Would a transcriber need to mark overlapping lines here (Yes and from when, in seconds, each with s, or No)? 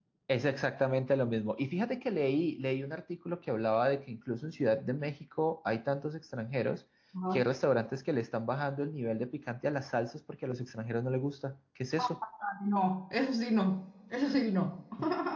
No